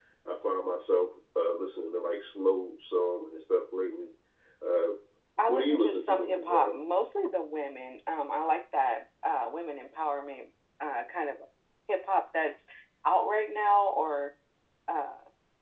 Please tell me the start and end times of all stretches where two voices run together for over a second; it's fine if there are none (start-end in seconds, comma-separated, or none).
5.5-6.7